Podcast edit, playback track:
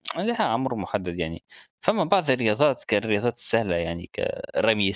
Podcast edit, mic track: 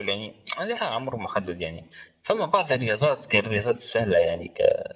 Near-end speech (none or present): none